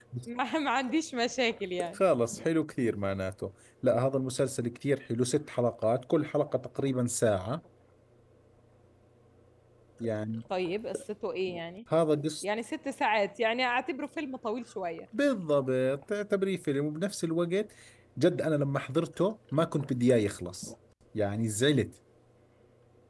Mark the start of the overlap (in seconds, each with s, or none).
none